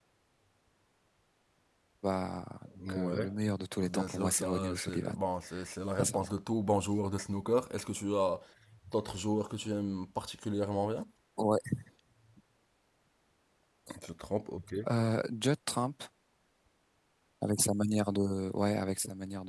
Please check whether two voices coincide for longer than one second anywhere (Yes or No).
Yes